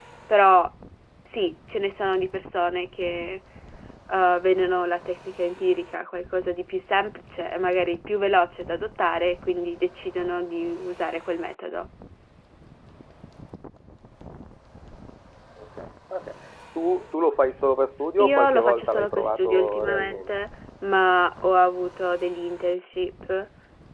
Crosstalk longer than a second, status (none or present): present